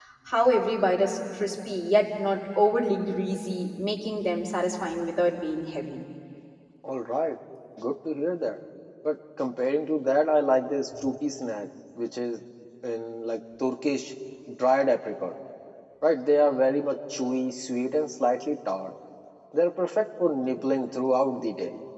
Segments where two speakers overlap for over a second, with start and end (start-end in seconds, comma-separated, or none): none